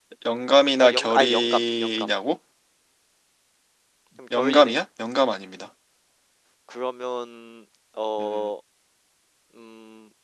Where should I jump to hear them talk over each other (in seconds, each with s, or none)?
0.8 s